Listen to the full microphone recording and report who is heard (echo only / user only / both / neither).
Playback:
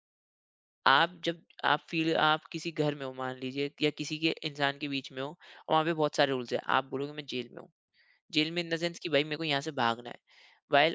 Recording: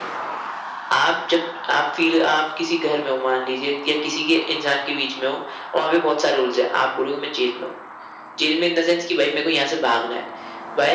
echo only